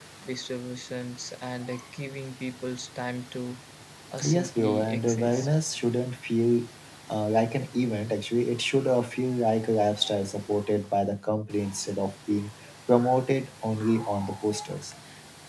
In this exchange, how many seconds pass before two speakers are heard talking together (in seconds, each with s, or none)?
4.2 s